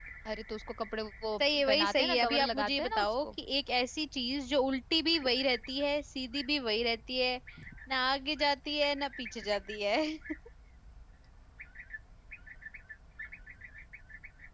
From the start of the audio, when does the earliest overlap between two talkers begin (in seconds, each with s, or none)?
1.4 s